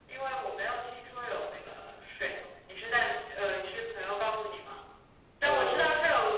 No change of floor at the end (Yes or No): Yes